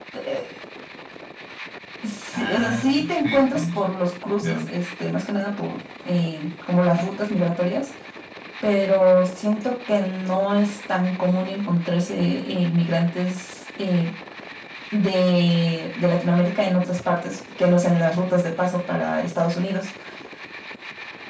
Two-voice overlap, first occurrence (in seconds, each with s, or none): 2.3 s